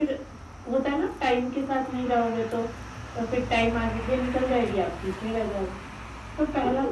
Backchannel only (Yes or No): No